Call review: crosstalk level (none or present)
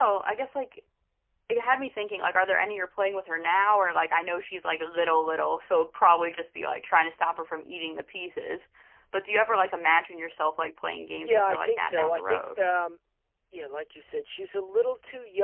present